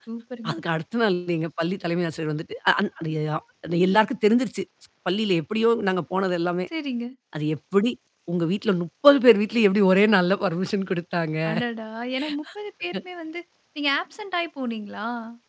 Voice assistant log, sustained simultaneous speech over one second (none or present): none